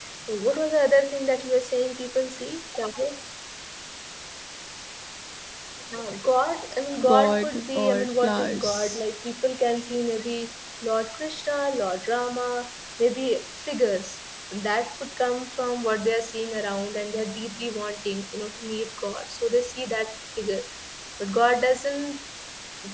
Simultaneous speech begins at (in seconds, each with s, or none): 6.9 s